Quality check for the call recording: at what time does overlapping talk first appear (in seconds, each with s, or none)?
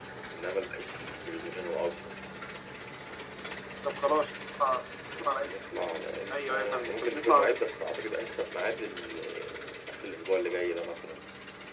6.3 s